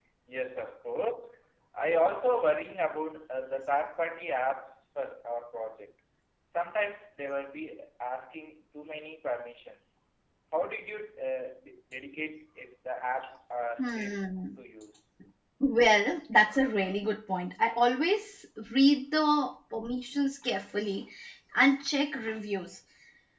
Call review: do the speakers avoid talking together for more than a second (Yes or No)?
Yes